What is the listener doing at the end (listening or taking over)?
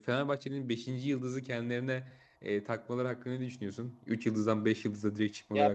taking over